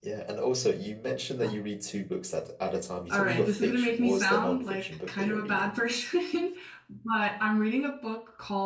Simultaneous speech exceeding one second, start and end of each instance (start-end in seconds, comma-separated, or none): 3.1-5.7